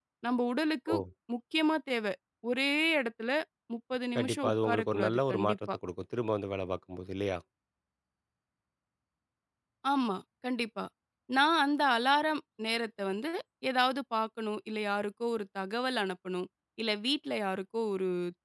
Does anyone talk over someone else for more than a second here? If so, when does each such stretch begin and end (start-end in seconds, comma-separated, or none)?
4.2-5.8